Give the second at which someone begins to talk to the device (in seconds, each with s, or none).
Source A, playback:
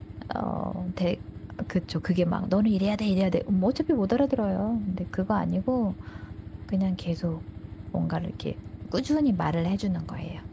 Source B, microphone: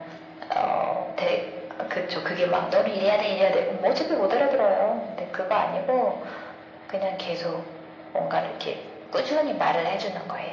none